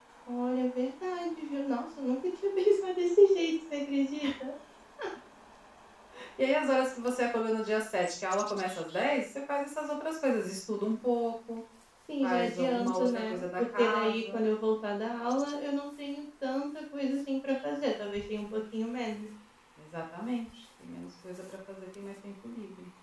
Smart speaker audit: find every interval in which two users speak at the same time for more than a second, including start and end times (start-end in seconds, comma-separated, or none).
12.2-14.4